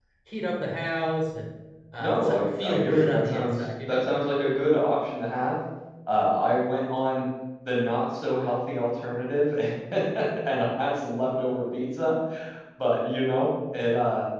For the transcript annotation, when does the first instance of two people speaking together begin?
2.0 s

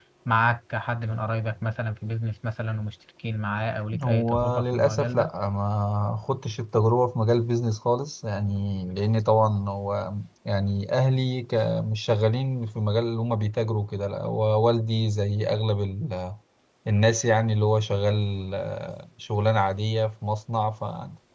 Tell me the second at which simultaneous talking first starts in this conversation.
3.9 s

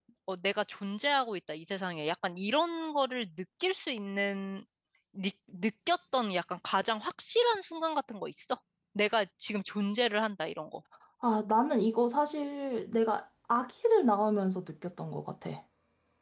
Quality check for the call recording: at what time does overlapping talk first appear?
none

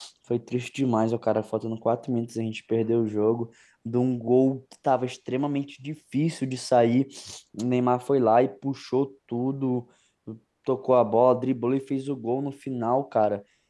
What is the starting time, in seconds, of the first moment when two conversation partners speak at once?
none

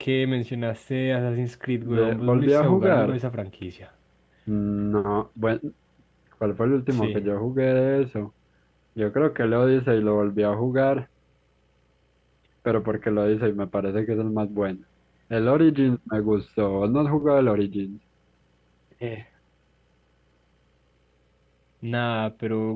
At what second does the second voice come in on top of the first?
1.8 s

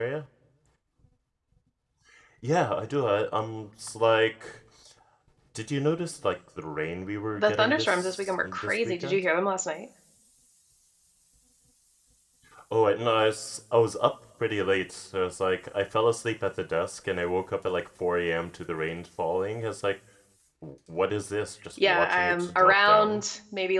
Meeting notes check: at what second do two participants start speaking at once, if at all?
7.3 s

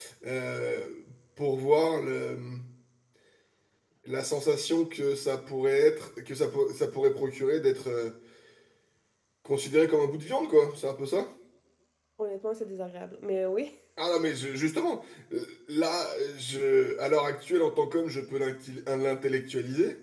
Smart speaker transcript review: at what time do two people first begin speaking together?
none

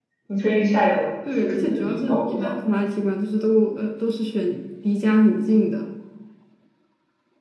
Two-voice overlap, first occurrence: 1.2 s

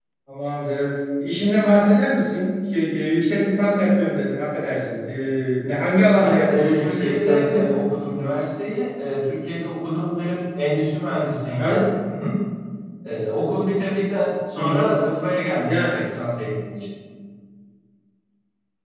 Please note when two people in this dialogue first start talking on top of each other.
6.2 s

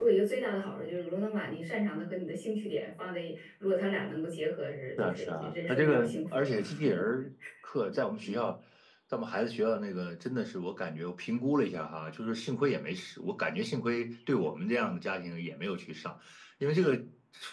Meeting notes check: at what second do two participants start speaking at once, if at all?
5.0 s

